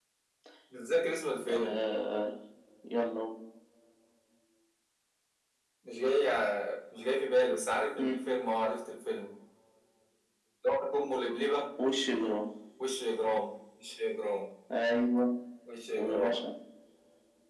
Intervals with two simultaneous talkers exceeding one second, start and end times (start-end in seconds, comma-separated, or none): none